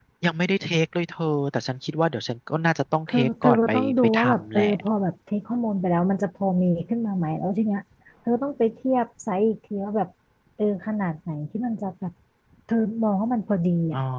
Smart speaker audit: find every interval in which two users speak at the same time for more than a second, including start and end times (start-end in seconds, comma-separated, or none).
3.1-4.7